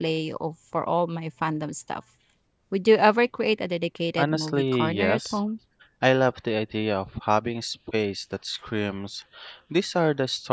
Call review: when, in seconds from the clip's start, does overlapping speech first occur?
4.2 s

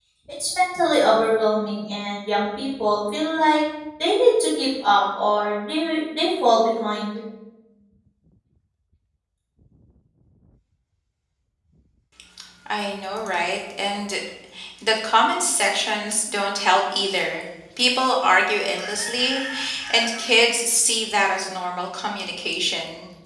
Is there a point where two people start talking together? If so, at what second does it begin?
none

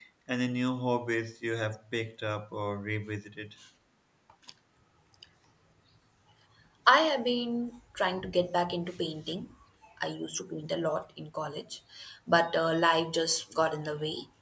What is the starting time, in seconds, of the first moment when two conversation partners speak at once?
none

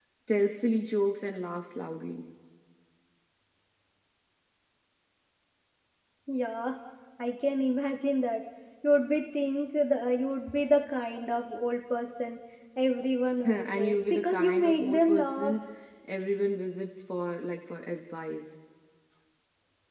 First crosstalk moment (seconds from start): 13.4 s

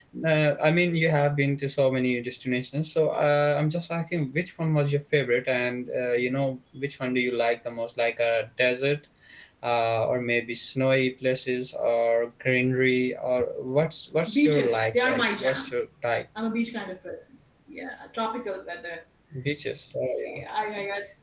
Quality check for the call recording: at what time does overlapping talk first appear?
14.3 s

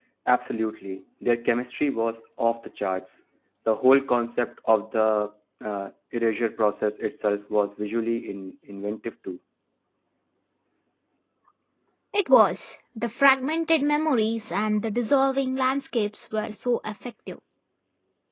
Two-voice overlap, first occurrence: none

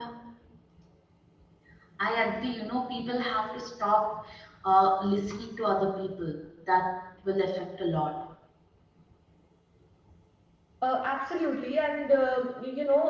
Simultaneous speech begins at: none

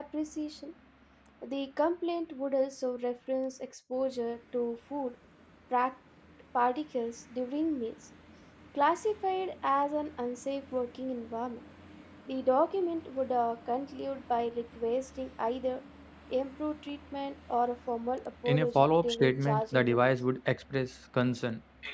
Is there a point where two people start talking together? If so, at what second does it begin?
18.4 s

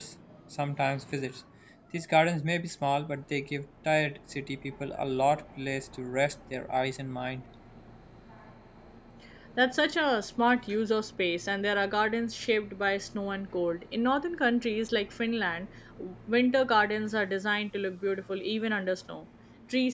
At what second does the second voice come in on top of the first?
none

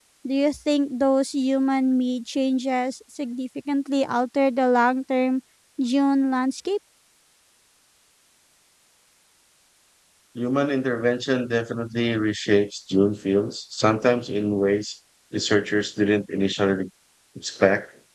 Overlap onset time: none

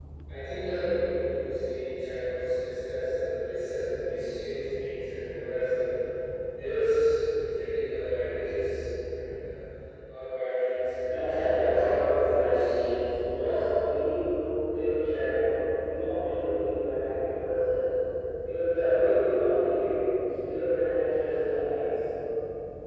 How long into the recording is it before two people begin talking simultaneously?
11.0 s

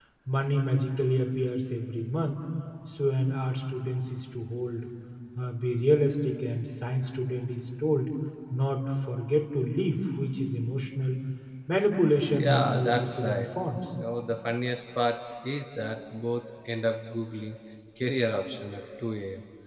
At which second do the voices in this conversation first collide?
12.2 s

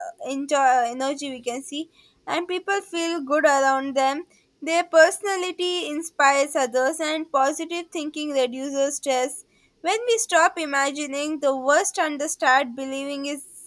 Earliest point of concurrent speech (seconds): none

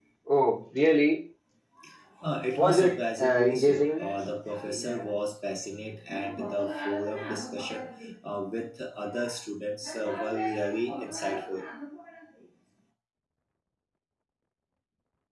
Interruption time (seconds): 2.6 s

